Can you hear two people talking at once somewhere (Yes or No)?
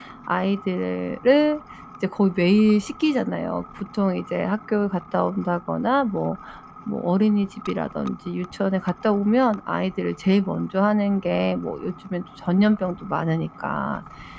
No